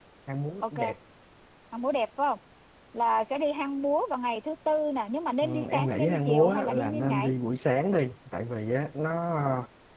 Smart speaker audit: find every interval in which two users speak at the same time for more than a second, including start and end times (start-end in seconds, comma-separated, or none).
5.4-7.3